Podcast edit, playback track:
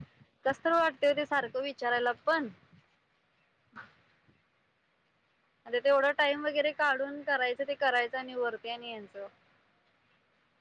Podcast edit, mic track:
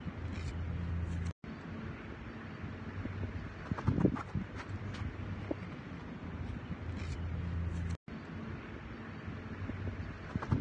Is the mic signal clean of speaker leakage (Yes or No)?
Yes